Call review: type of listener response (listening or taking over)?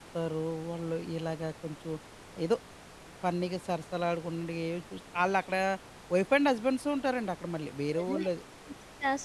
taking over